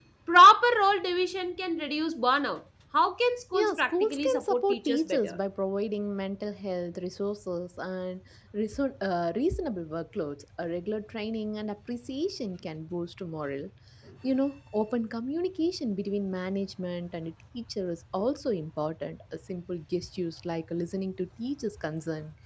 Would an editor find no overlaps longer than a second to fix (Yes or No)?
No